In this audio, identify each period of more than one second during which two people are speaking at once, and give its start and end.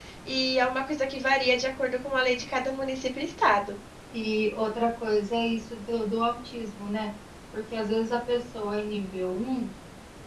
none

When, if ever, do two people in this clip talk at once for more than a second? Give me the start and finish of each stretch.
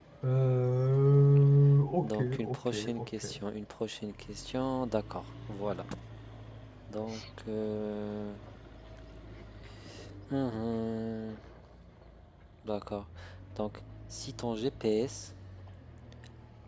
2.0-3.2

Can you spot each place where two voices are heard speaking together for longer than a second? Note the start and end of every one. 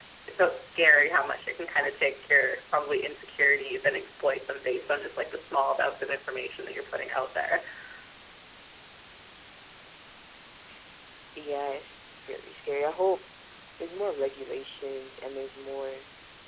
none

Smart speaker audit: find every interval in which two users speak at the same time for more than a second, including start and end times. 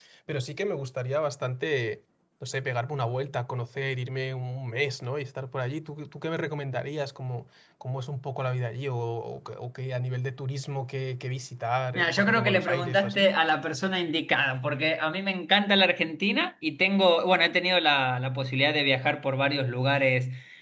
11.9-13.3

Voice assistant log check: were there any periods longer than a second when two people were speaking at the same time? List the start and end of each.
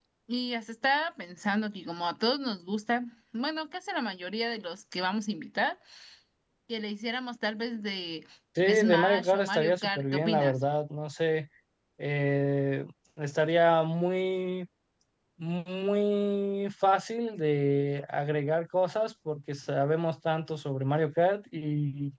8.6-10.5

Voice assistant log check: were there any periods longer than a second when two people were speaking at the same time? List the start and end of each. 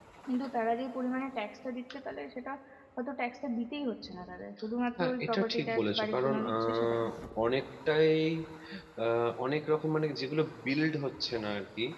5.0-7.0

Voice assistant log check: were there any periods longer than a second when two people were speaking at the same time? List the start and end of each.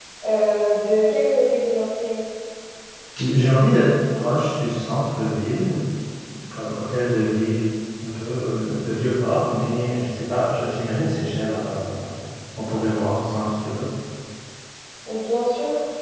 none

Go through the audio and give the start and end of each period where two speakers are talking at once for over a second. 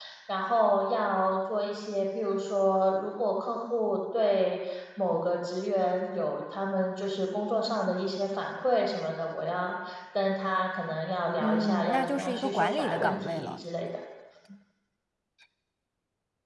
11.4-13.6

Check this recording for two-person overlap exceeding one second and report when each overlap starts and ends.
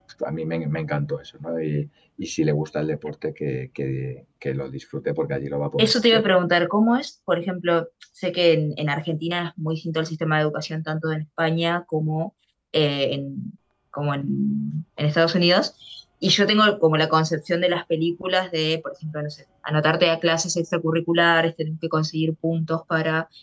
none

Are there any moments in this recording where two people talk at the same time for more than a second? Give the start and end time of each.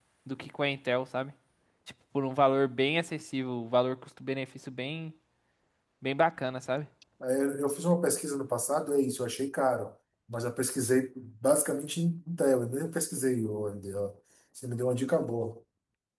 none

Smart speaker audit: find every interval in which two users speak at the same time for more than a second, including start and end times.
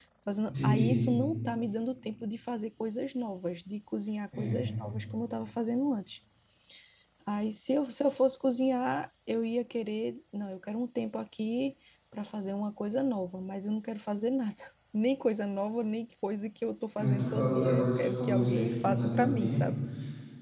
17.0-19.6

